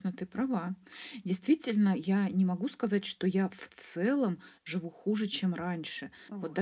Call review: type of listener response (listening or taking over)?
listening